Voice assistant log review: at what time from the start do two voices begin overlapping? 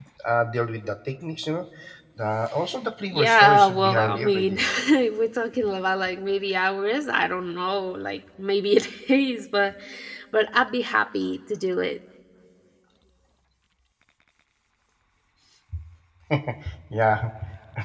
3 s

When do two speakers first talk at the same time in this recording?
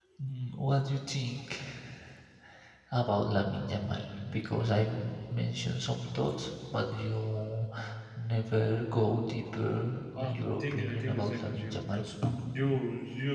10 s

